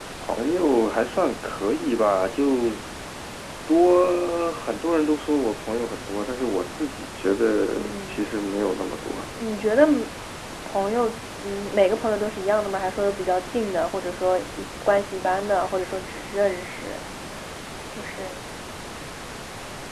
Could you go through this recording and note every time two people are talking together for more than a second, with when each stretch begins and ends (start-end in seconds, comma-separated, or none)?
none